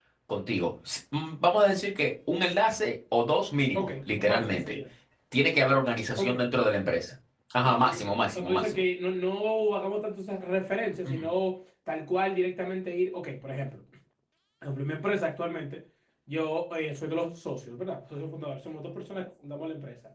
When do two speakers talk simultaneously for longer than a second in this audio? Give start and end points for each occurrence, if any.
7.6-8.8

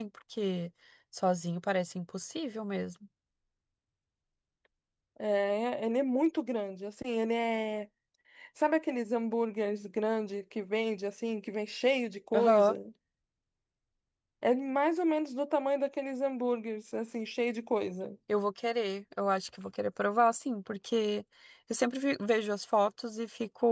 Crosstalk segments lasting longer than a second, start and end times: none

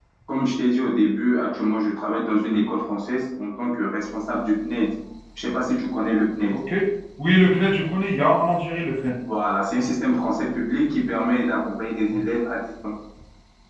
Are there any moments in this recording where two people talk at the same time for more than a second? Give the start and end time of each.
none

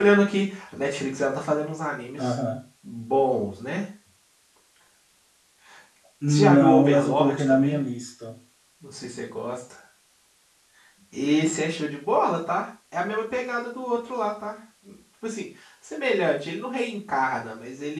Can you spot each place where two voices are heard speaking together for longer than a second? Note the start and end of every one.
6.3-7.8

